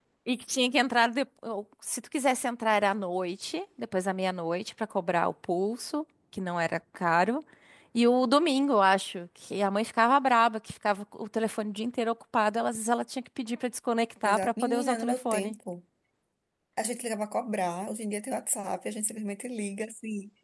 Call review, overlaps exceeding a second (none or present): present